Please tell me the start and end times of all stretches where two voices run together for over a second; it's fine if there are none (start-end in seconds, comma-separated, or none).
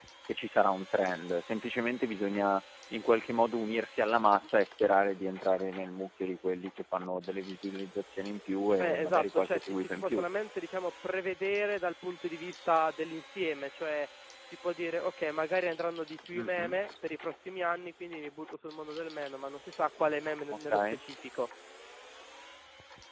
8.8-10.2